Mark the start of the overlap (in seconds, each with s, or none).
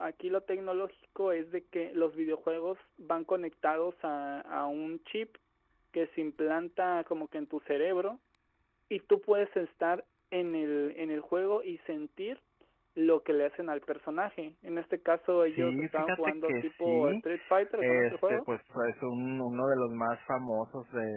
15.4 s